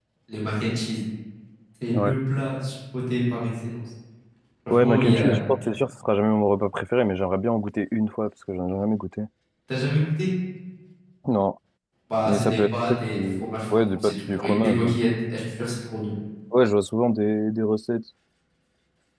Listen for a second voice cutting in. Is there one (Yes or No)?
Yes